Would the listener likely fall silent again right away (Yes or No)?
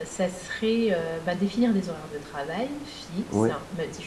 Yes